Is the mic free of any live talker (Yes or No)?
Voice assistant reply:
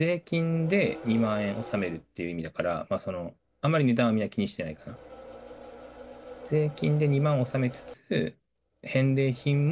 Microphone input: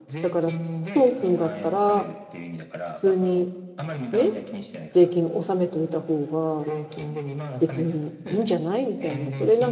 No